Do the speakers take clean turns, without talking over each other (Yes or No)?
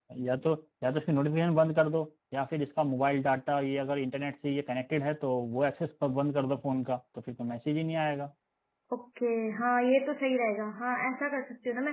Yes